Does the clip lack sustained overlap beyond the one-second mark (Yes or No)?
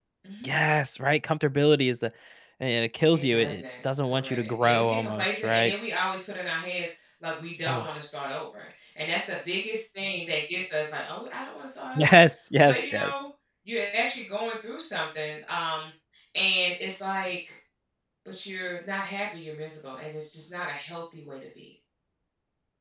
No